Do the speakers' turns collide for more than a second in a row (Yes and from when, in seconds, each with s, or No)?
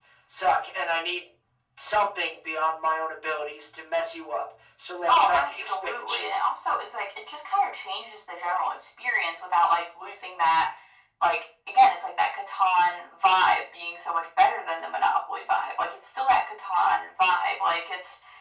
Yes, from 5.1 s